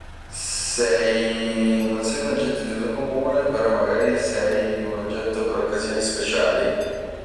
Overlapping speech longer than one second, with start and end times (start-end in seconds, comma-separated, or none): none